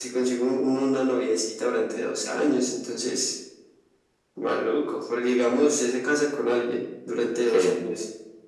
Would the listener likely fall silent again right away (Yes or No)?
Yes